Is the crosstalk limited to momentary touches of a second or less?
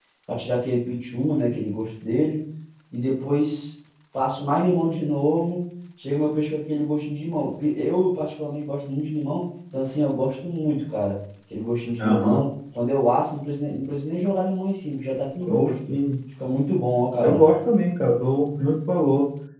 Yes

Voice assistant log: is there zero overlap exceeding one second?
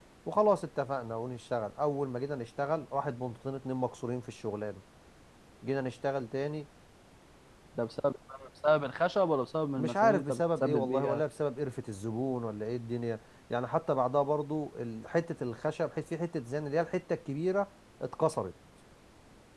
No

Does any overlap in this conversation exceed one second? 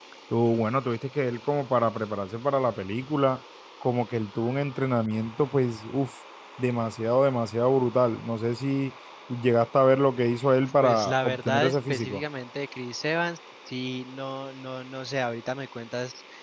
Yes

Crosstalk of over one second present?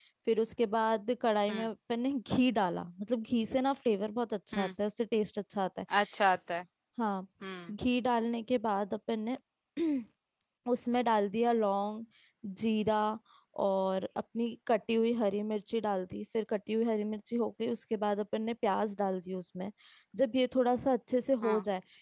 No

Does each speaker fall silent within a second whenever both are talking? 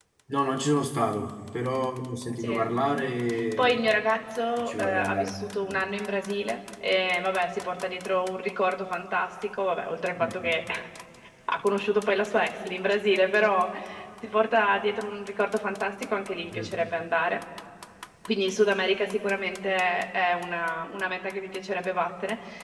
No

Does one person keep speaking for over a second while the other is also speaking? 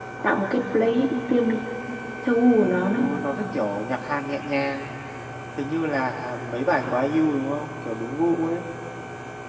No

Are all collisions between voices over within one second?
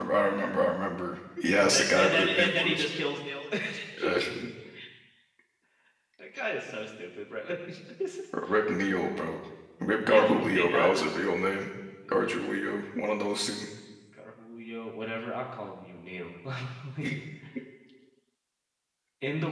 No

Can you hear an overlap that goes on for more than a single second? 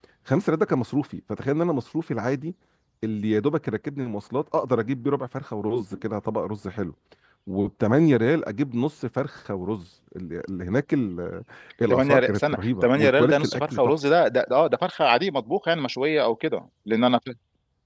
Yes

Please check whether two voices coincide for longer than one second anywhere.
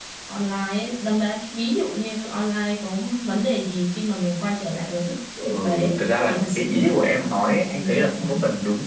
Yes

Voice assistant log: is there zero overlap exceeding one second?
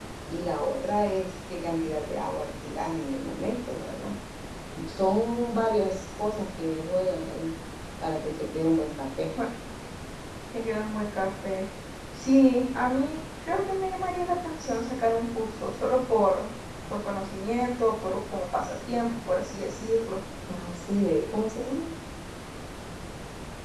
Yes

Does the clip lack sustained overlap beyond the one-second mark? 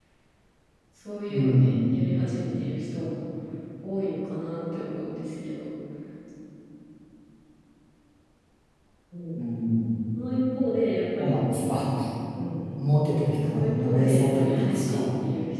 No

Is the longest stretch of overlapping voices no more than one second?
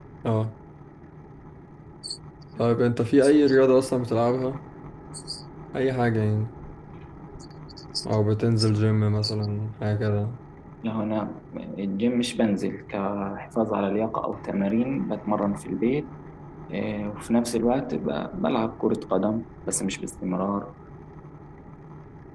Yes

